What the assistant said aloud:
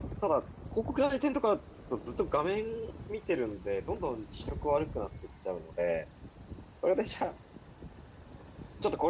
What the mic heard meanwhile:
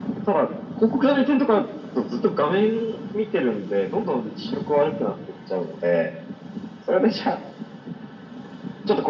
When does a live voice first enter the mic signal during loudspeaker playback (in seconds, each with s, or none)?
none